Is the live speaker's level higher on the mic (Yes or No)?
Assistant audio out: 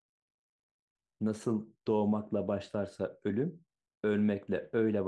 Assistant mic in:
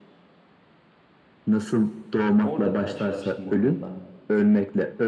No